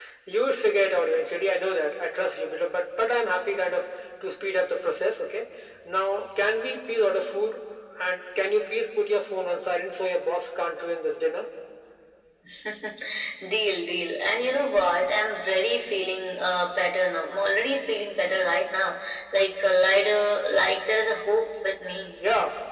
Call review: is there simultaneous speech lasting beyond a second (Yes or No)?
No